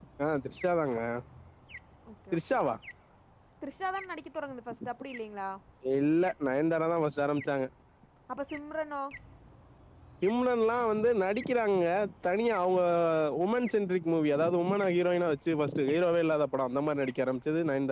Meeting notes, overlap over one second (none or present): none